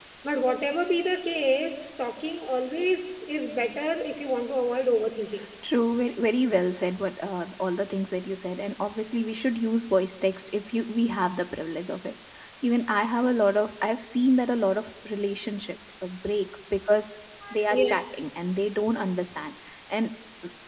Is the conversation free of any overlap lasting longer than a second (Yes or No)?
Yes